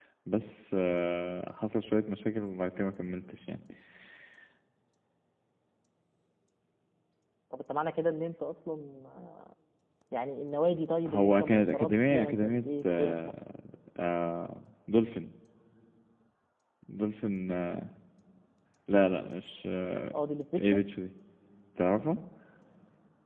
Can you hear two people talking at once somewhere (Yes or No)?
Yes